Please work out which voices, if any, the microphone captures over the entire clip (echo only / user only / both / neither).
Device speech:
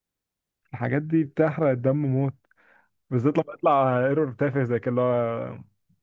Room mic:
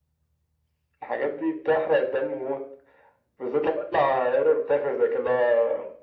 echo only